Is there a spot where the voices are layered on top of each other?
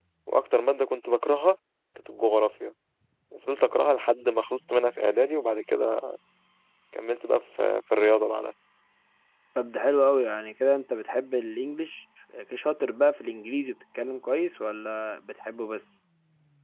No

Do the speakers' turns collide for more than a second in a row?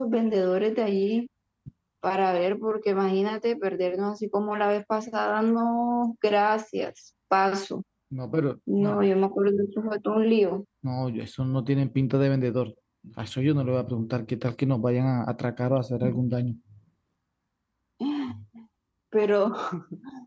No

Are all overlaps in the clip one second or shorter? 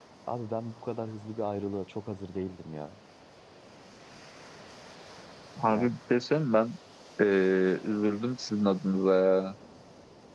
Yes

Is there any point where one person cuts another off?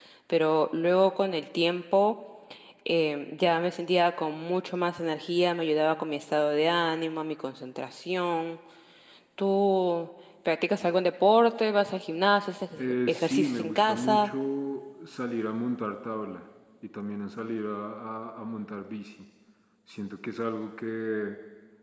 Yes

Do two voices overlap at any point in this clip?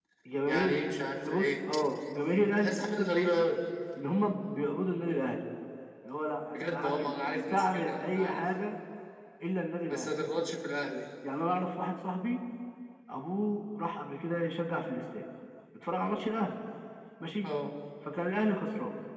Yes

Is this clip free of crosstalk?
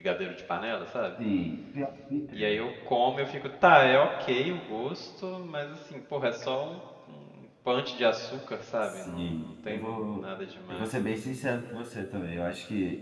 No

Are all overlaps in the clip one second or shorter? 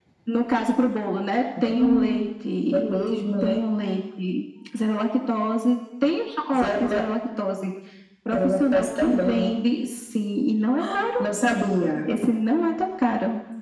No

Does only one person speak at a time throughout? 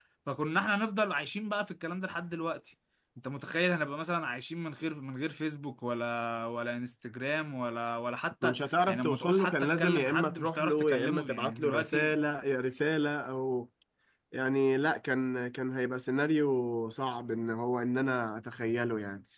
No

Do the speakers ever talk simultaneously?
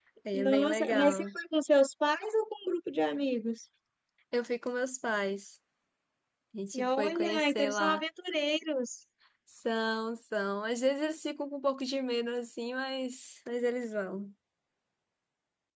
Yes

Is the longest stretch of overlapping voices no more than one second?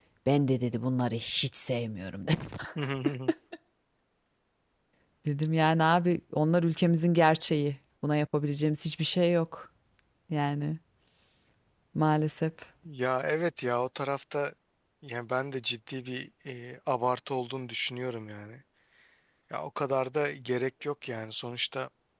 Yes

